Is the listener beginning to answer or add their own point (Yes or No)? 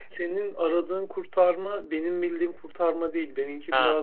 No